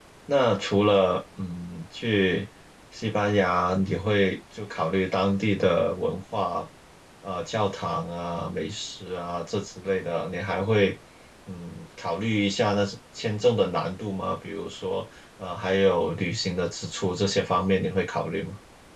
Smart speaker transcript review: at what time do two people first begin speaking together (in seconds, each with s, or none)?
none